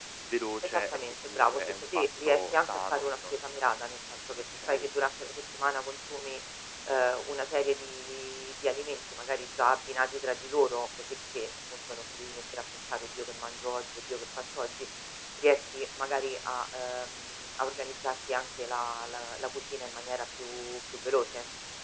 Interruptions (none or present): present